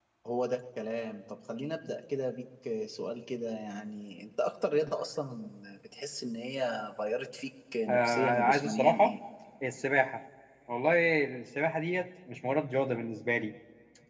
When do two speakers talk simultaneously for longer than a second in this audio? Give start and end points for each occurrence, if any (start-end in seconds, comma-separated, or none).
7.9-9.2